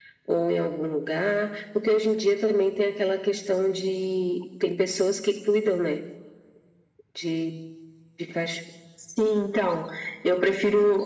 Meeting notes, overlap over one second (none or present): none